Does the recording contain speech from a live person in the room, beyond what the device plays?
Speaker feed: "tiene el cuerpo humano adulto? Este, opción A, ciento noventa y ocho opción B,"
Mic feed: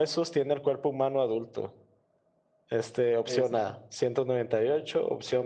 Yes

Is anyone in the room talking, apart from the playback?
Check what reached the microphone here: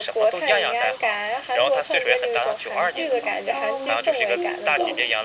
Yes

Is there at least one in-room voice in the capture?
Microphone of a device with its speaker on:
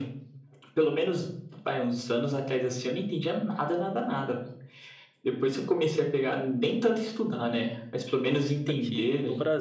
Yes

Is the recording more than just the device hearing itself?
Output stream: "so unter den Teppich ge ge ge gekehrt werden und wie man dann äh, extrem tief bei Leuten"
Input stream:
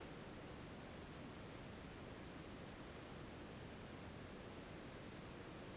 No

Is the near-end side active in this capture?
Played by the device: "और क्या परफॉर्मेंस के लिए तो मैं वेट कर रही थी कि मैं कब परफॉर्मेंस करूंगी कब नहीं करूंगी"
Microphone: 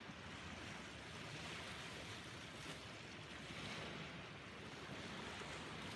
No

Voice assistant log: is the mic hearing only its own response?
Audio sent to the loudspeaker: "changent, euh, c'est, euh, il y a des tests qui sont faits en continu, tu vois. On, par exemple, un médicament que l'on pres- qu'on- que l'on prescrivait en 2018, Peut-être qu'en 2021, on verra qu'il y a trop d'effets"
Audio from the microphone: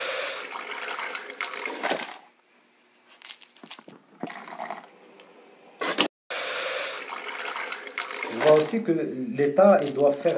No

